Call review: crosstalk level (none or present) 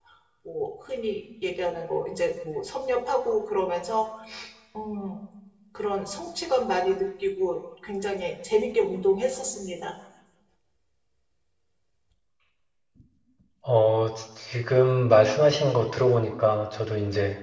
none